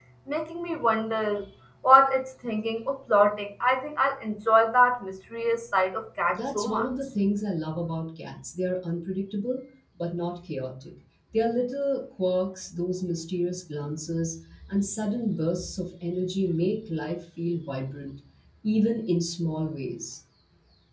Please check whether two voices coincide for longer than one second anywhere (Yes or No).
No